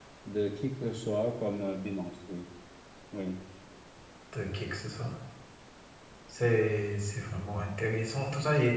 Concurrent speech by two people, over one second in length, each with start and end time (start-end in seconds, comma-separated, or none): none